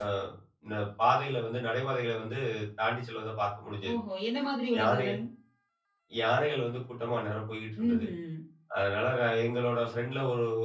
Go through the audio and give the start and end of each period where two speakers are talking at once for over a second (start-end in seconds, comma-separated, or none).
none